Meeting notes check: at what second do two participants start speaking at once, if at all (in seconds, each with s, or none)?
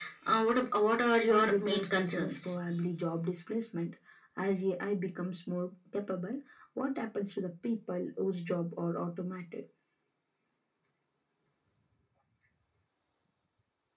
1.3 s